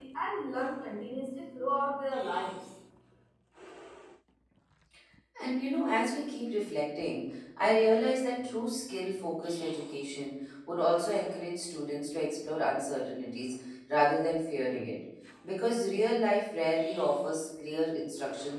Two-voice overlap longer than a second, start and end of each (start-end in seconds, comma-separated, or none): none